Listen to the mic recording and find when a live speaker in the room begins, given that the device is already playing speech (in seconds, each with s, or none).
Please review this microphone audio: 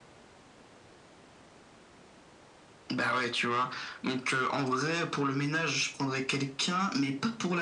none